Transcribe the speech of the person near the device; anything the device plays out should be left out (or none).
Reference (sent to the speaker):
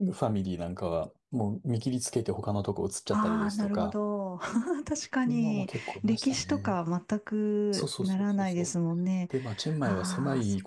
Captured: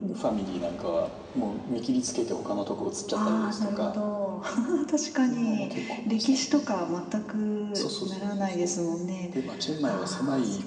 none